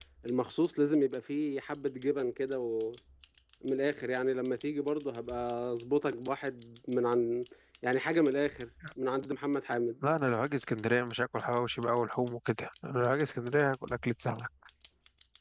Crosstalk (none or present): none